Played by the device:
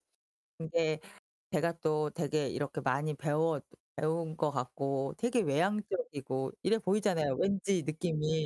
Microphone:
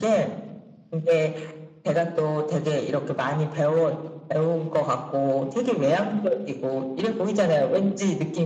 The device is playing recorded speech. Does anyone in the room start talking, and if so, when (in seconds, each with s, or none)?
none